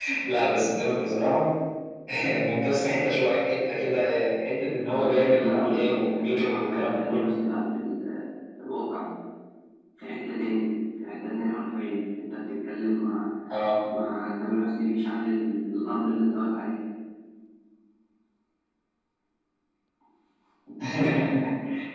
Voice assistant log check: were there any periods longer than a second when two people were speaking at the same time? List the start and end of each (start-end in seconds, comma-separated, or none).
4.9-7.3